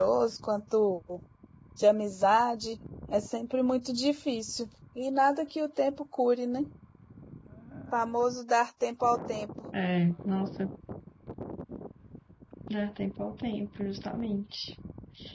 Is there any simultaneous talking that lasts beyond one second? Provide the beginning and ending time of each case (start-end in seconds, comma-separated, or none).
none